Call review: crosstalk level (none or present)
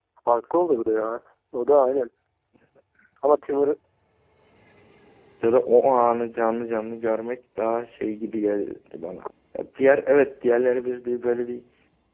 none